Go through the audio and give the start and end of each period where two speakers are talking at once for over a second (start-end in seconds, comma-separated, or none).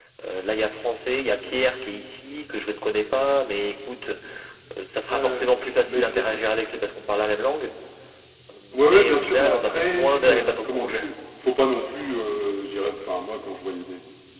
8.7-11.1